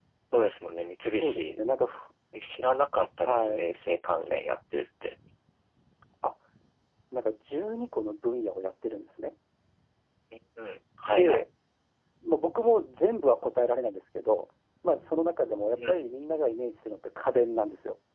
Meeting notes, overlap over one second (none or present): none